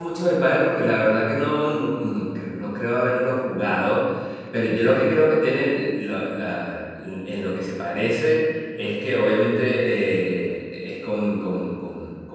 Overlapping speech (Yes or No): No